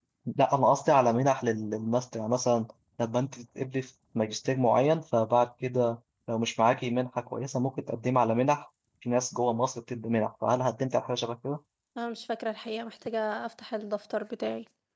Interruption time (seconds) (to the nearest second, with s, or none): none